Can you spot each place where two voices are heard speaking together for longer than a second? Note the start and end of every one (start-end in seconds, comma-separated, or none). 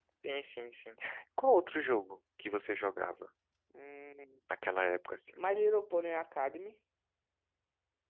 none